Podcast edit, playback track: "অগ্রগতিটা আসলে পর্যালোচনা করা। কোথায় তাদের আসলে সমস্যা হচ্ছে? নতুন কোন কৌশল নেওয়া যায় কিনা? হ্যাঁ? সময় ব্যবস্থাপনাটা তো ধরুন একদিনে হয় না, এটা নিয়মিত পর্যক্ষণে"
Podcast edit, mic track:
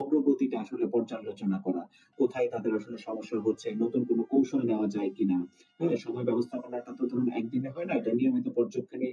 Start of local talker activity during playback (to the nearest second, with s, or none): none